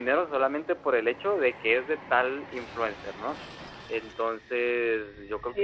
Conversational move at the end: taking over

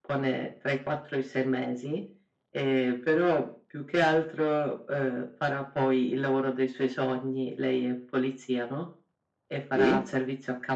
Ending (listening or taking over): listening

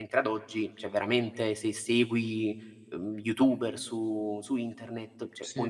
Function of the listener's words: listening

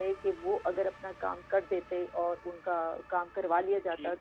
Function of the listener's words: listening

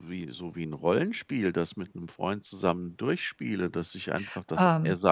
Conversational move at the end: listening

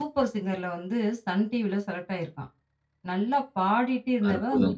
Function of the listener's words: listening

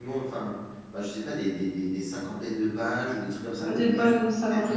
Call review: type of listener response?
taking over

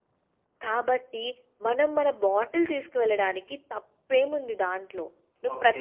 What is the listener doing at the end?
listening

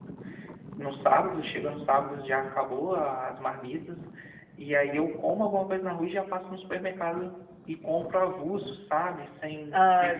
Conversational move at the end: listening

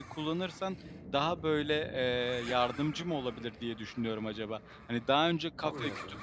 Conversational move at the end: listening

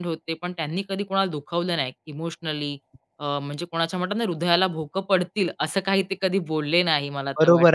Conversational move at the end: taking over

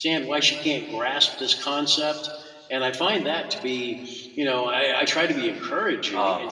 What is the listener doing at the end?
taking over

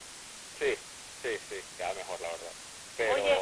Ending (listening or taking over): taking over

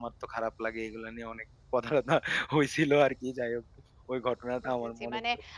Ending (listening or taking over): taking over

